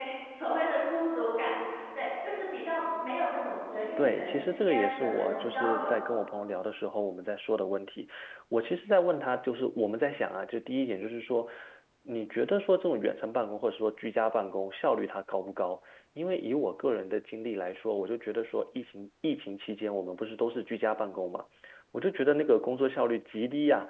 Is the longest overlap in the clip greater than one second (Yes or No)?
Yes